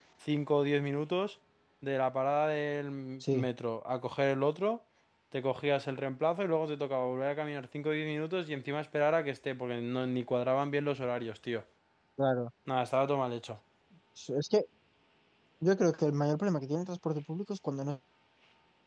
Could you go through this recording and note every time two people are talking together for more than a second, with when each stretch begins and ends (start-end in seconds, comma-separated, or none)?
none